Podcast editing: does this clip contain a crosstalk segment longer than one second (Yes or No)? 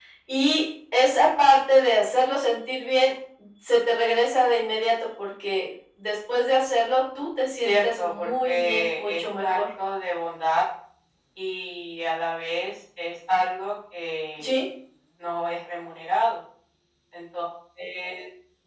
Yes